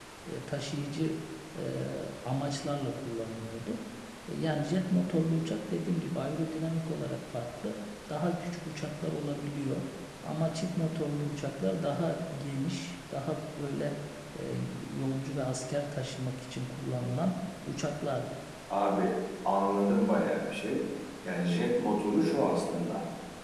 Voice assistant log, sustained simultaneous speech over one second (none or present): none